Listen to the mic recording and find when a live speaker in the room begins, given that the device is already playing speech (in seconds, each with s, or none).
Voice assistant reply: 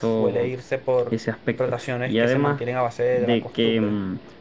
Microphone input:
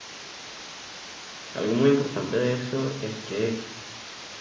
1.5 s